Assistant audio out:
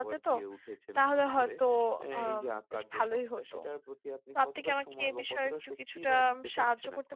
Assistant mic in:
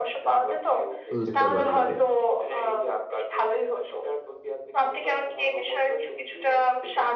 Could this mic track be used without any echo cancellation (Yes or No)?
No